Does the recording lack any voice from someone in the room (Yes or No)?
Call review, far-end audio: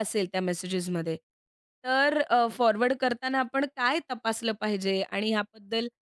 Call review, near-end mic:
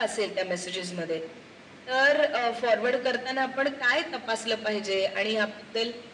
Yes